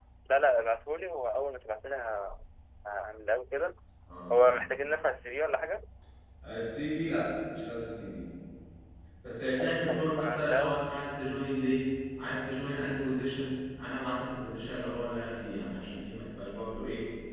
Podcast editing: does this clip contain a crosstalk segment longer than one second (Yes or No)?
Yes